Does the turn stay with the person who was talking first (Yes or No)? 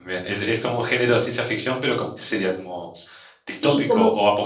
No